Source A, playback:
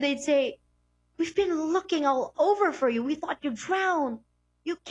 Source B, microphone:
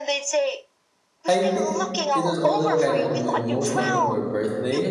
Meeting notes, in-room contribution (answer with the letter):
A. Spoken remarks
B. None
A